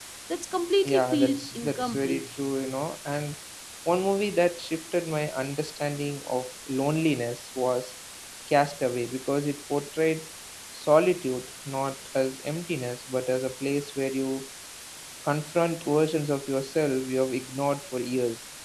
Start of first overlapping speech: 0.8 s

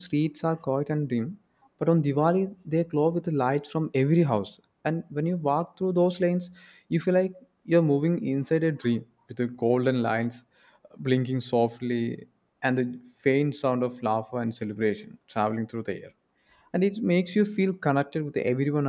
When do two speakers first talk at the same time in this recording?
none

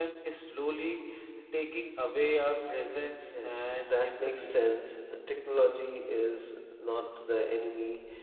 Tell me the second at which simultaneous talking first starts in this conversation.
3.3 s

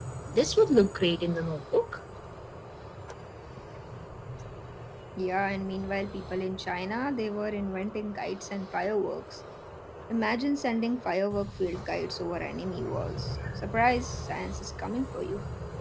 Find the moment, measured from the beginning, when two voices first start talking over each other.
none

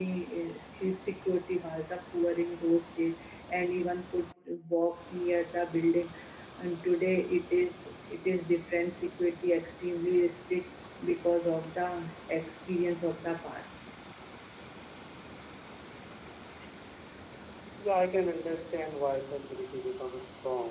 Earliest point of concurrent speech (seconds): none

